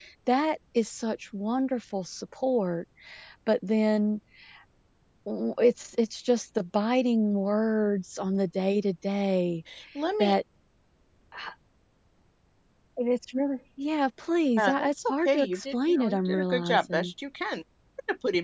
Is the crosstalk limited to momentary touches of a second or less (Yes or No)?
No